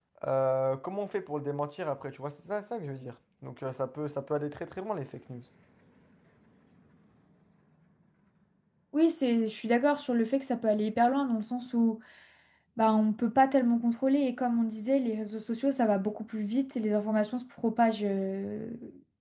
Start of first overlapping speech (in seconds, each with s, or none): none